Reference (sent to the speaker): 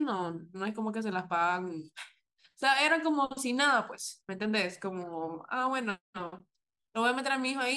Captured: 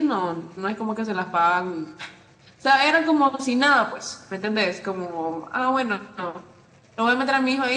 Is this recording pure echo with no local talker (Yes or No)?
Yes